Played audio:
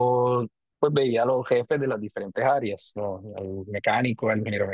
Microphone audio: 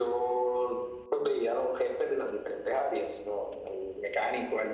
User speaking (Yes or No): No